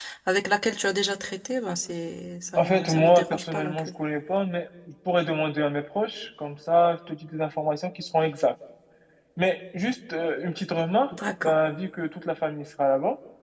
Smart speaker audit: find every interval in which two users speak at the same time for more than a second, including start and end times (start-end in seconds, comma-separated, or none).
2.5-3.8